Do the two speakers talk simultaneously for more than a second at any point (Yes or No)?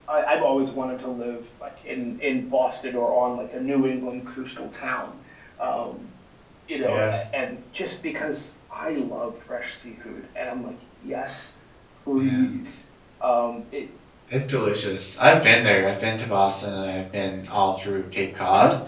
No